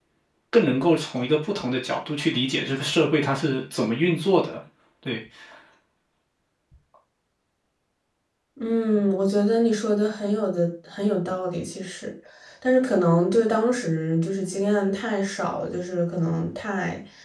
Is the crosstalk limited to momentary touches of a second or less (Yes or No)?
Yes